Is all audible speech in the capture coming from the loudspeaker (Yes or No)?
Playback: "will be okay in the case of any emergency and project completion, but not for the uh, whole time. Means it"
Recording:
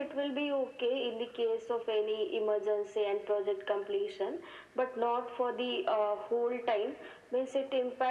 Yes